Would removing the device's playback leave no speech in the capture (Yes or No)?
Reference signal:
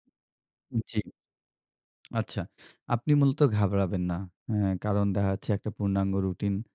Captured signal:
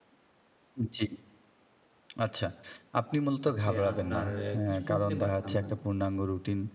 No